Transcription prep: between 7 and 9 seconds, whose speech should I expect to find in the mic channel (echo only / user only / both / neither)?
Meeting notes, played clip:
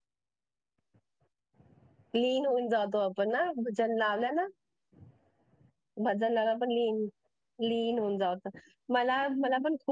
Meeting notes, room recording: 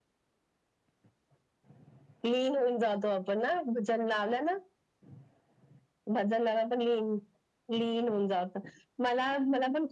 echo only